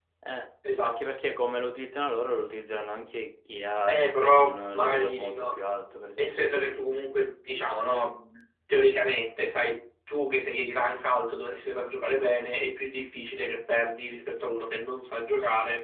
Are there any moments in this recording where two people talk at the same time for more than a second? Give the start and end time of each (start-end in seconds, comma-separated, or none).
3.9-5.5